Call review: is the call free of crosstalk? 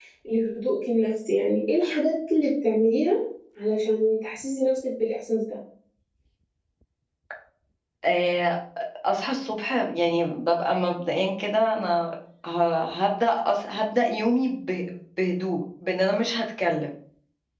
Yes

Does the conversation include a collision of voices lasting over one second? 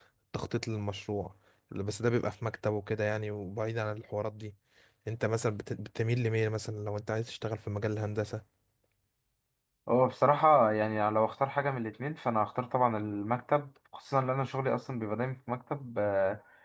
No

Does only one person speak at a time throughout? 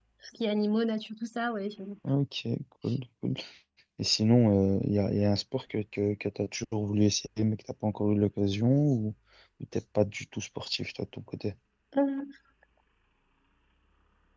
Yes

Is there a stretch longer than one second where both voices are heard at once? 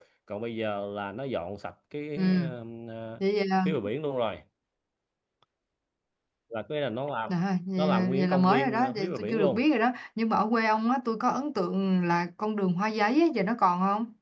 Yes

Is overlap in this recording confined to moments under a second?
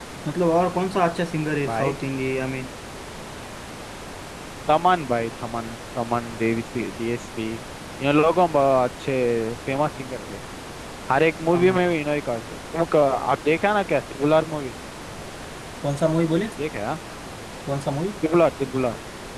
Yes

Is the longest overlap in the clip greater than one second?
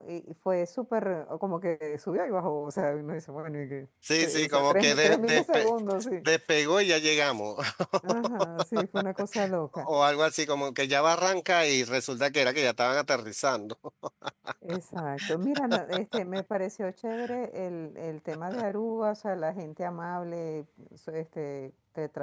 Yes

